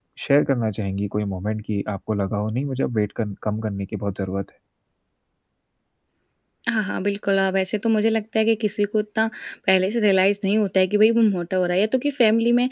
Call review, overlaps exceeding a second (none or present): none